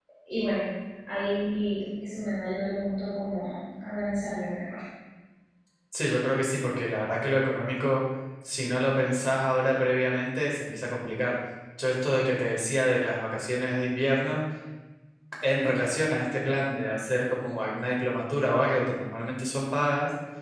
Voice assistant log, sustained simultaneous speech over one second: none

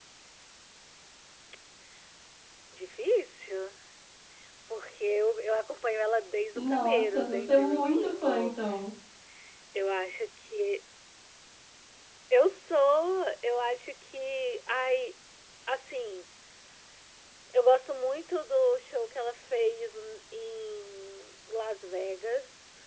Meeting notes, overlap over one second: present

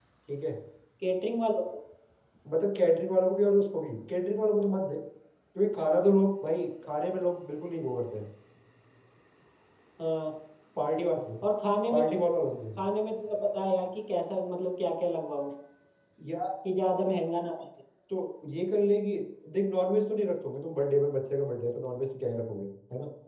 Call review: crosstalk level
none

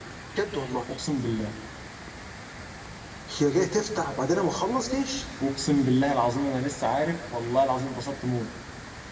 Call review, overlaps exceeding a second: none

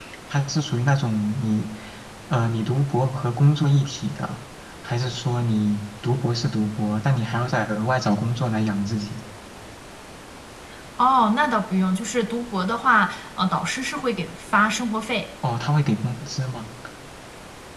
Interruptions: none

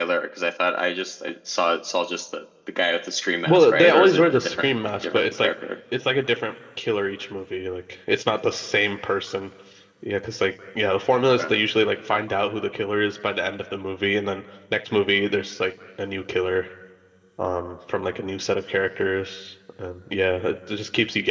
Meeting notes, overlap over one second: present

